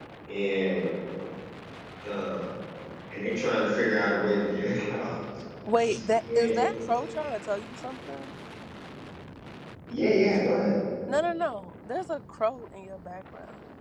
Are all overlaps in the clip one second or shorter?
Yes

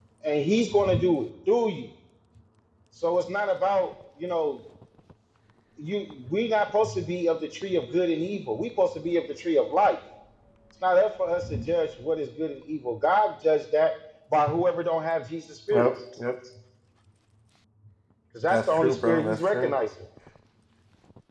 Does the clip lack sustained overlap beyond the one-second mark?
No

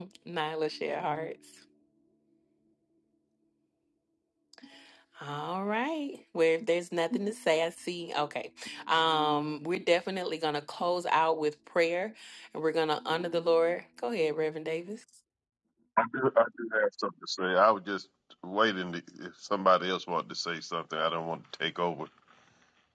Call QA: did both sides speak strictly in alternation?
Yes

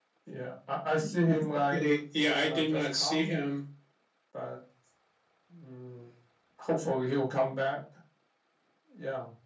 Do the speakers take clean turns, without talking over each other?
No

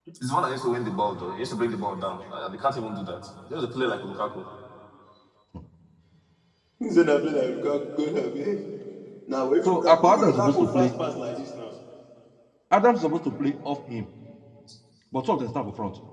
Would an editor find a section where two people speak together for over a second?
Yes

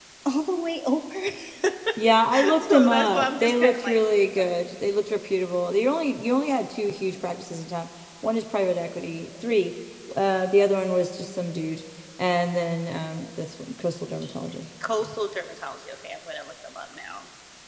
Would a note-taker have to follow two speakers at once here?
Yes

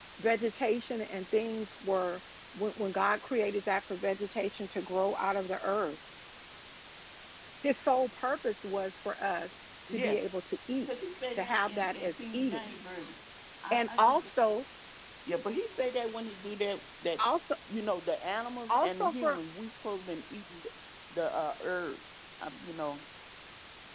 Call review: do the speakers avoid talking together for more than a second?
No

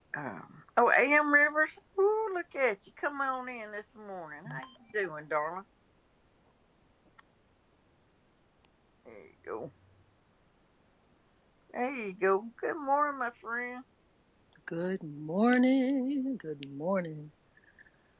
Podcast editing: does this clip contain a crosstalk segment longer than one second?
No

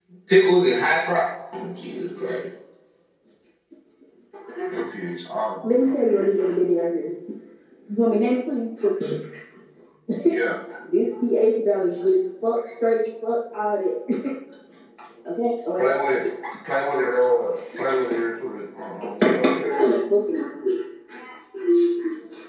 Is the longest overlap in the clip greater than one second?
No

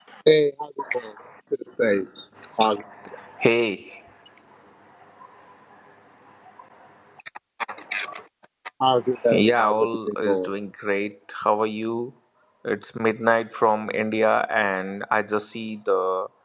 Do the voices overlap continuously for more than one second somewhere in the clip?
Yes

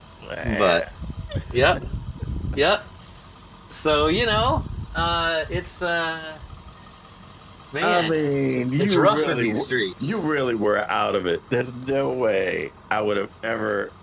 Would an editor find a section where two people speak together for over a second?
Yes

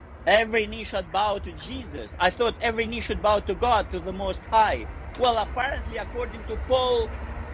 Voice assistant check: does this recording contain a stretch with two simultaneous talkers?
No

